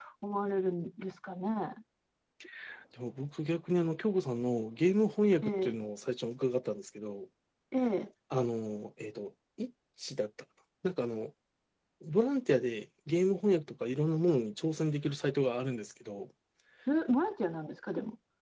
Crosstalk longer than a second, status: none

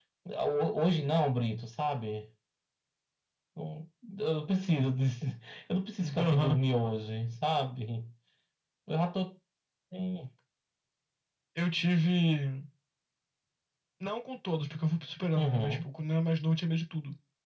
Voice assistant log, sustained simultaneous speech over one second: none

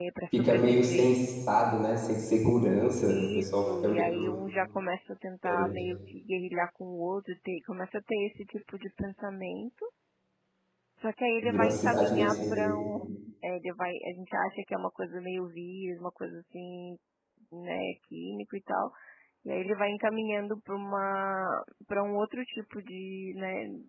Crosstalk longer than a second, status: present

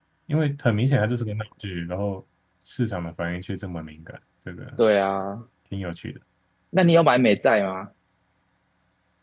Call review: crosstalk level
none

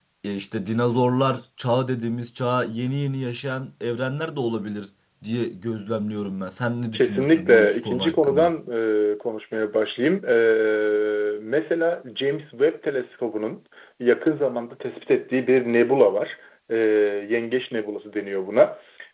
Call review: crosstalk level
present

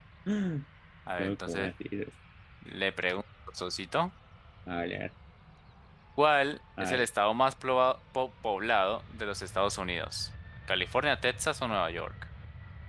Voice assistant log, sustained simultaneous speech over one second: none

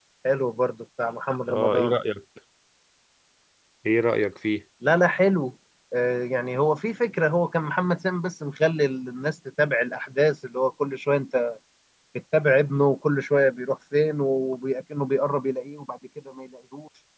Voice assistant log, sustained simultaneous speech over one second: none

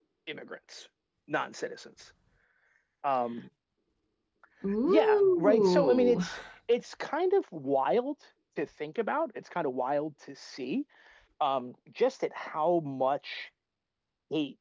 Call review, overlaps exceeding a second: present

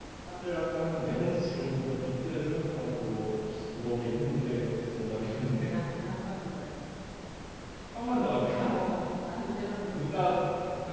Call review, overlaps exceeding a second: none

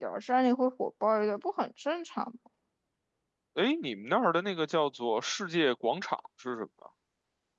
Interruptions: none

